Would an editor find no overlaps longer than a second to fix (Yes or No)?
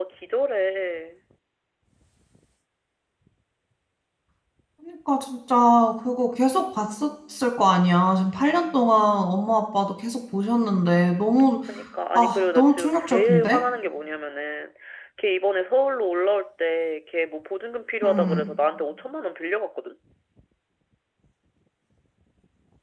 No